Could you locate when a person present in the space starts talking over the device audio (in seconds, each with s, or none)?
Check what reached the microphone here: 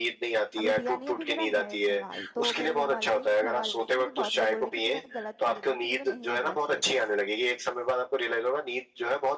0.6 s